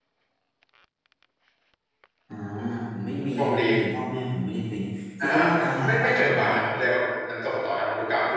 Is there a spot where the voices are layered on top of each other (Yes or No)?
Yes